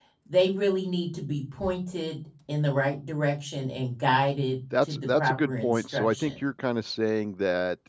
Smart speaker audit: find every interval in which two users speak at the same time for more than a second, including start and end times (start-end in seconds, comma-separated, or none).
4.8-6.3